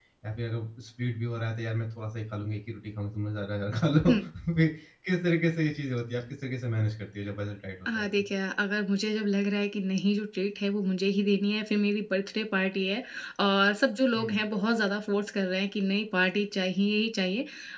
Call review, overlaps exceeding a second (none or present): none